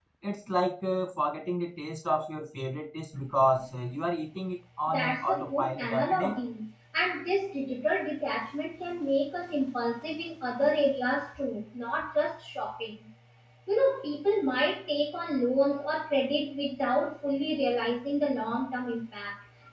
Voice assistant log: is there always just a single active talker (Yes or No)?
No